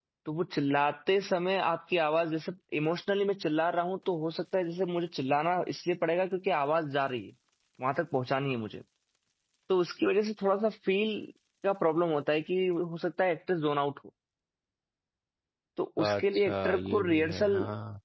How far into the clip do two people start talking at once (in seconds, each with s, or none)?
16.0 s